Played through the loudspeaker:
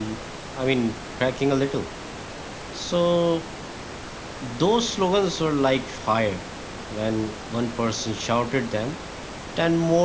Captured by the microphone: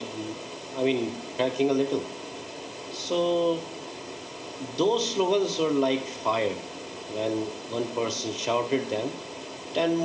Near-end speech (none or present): none